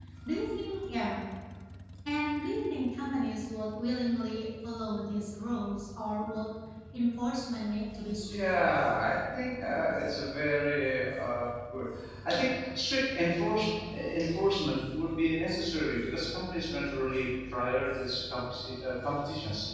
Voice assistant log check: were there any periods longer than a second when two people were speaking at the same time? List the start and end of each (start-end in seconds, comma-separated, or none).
none